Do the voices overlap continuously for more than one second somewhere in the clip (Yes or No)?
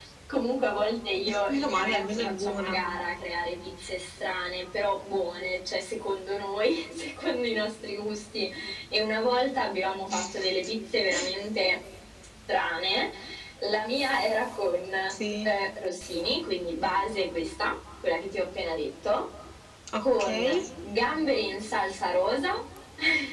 Yes